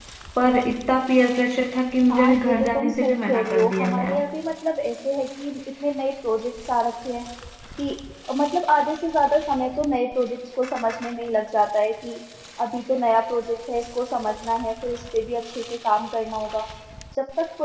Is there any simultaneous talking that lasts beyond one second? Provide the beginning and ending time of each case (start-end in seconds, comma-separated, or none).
2.1-4.2